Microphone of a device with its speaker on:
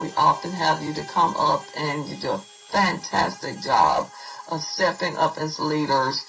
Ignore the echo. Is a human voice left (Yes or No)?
No